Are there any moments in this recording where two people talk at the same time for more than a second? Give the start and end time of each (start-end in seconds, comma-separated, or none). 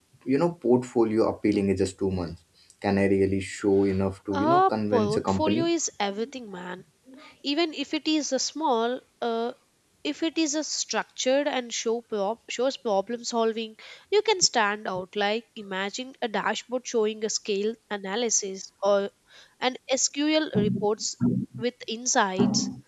4.3-5.7